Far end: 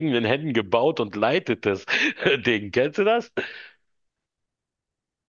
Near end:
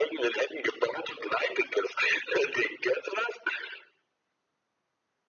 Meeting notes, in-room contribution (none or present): none